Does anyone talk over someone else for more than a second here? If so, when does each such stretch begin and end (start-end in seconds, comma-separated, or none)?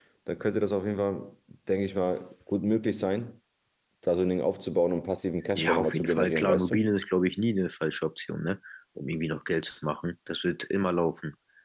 5.5-6.8